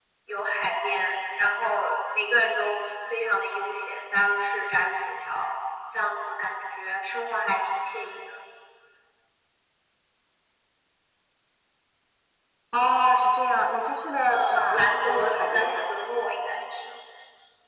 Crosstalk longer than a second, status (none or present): present